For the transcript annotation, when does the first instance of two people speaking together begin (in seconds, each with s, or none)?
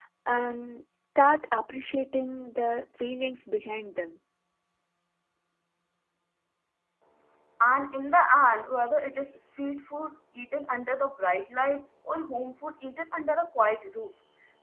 none